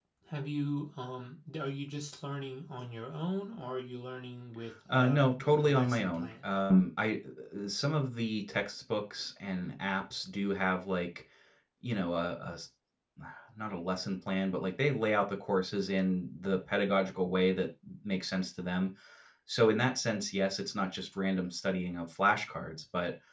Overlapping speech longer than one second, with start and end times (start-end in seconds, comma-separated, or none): 4.9-6.5